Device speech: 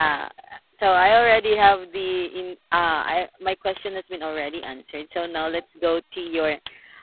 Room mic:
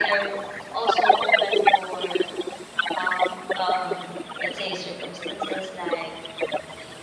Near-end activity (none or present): present